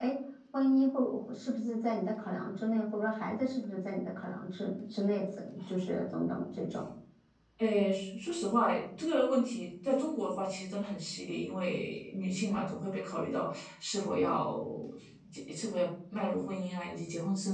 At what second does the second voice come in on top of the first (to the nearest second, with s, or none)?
none